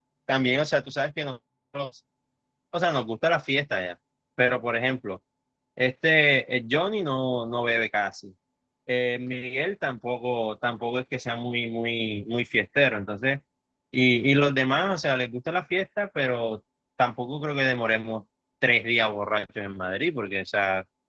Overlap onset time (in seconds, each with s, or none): none